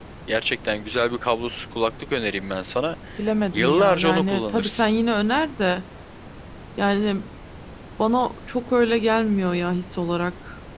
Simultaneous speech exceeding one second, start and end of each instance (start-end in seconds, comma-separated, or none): 3.5-4.9